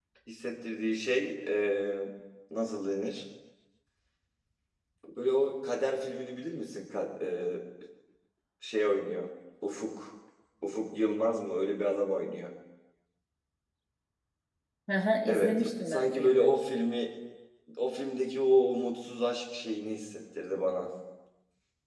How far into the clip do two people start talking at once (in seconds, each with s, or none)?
15.3 s